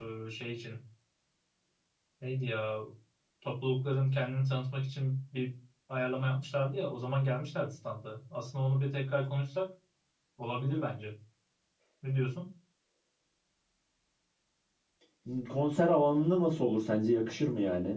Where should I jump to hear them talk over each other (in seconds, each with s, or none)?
none